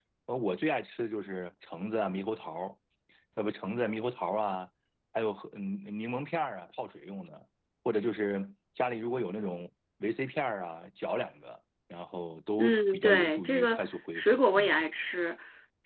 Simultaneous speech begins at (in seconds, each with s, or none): 12.6 s